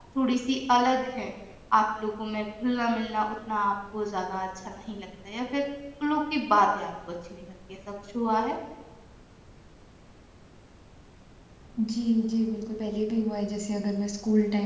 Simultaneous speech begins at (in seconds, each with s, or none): none